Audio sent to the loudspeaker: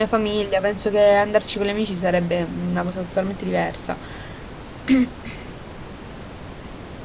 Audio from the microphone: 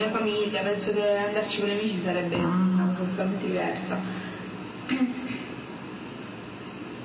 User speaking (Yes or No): Yes